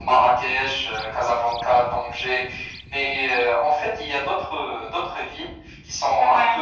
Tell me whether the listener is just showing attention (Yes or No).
Yes